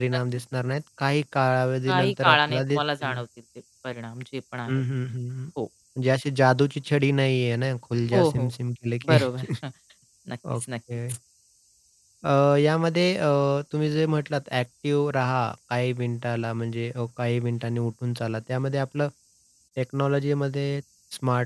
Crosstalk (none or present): present